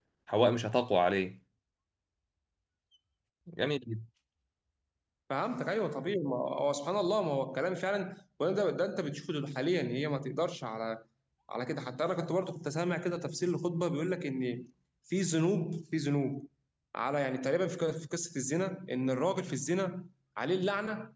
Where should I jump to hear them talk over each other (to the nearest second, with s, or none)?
none